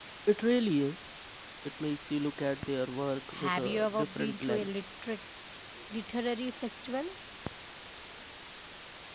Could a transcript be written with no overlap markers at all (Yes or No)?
No